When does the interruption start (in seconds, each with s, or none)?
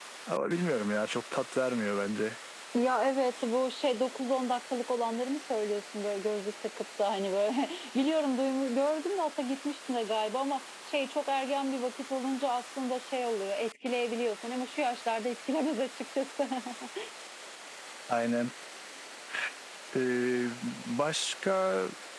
none